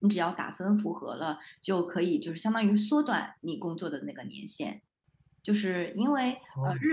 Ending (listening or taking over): listening